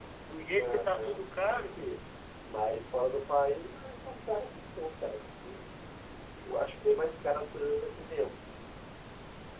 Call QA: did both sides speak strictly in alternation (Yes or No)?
No